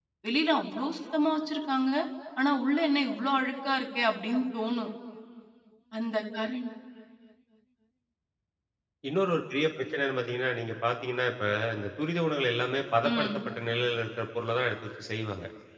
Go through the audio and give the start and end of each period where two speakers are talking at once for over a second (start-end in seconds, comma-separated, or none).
none